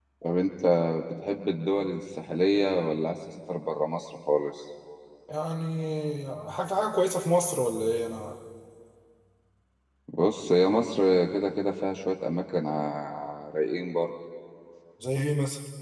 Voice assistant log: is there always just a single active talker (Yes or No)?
Yes